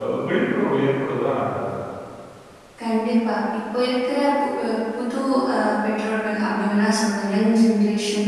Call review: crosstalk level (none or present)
none